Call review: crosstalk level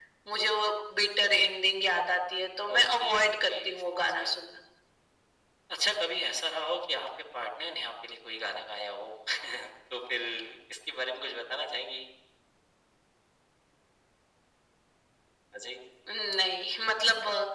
present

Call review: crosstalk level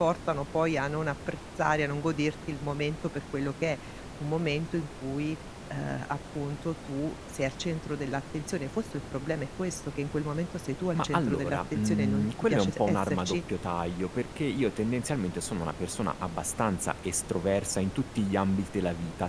present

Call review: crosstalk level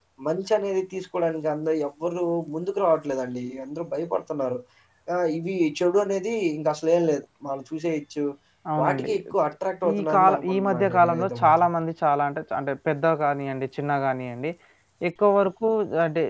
present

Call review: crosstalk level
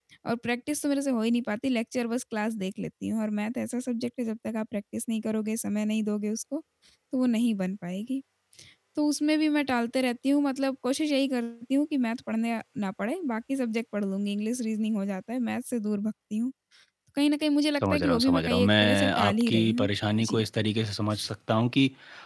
present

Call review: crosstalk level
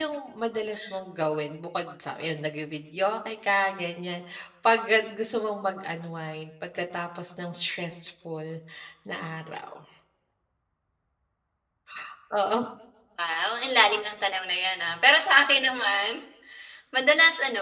none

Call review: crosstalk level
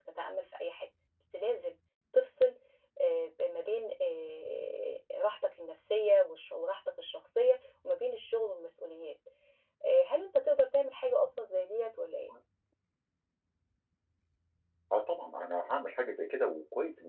none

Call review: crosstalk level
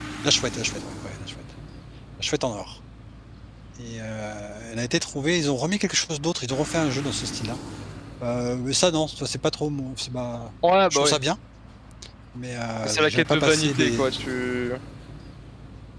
present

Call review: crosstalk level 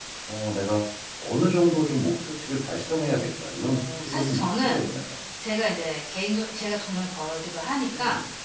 present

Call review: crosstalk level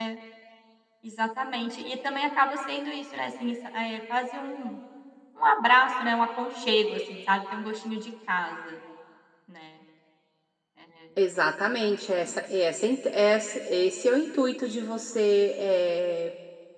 none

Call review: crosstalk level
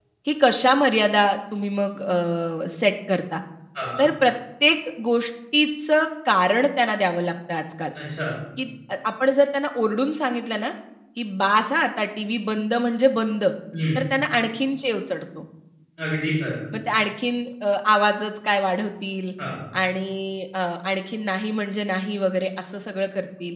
none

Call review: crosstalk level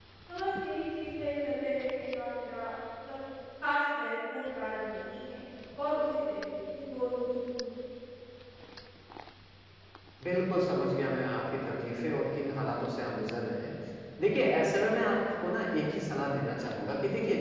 none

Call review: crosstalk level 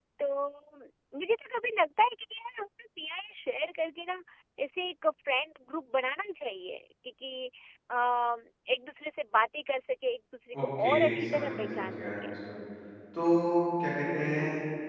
present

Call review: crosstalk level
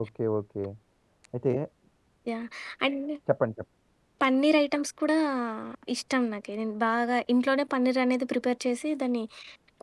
none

